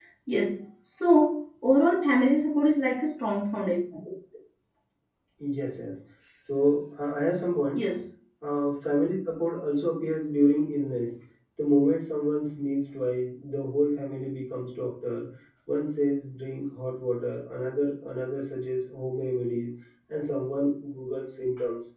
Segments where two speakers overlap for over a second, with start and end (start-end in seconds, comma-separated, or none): none